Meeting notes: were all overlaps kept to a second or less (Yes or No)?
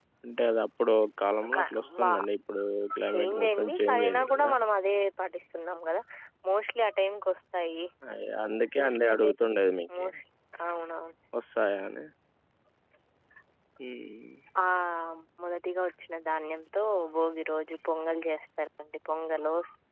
No